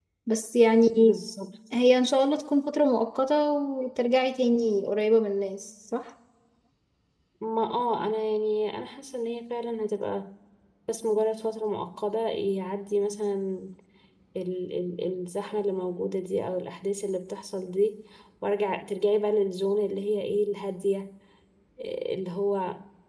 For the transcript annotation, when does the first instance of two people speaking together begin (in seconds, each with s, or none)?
none